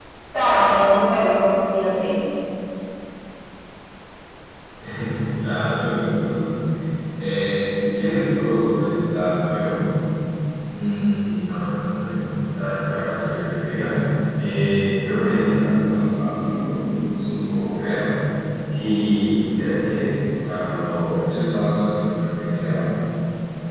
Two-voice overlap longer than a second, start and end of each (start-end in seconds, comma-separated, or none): none